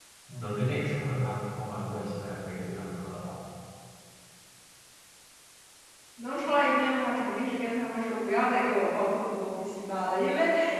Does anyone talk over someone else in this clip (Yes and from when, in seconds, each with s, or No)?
No